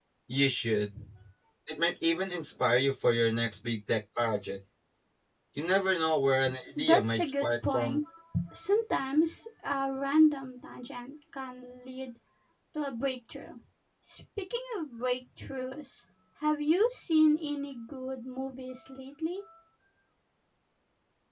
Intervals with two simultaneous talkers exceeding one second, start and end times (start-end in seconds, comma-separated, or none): 6.8-8.0